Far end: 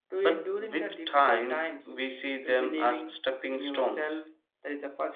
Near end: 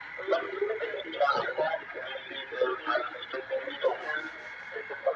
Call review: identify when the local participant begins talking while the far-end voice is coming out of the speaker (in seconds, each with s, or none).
none